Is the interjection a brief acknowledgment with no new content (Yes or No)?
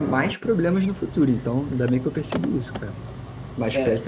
Yes